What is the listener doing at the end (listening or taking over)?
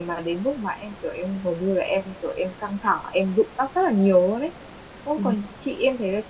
listening